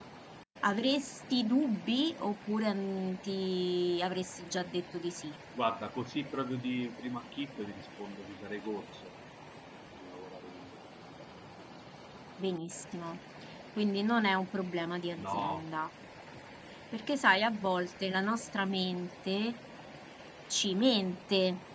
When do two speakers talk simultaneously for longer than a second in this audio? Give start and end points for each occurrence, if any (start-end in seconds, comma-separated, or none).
none